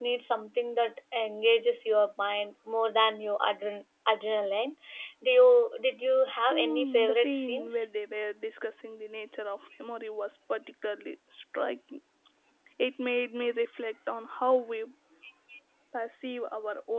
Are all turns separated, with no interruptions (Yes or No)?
No